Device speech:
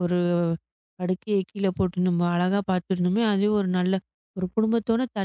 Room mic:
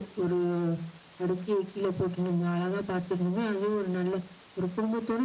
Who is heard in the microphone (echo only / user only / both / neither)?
echo only